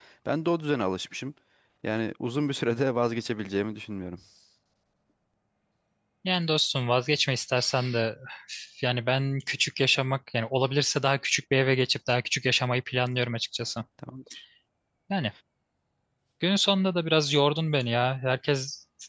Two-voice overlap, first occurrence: none

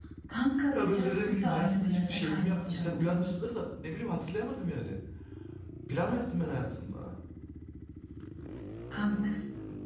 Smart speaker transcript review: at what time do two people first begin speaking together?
1 s

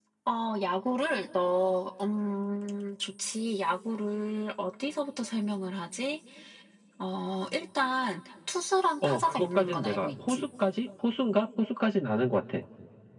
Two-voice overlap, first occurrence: 9 s

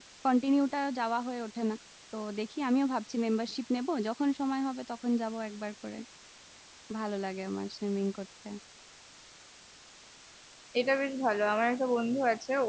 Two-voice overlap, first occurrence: none

